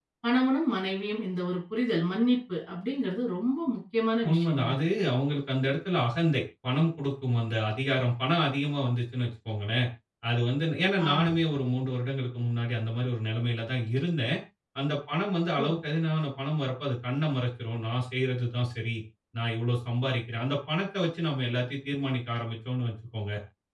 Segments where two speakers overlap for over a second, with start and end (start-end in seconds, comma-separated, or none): none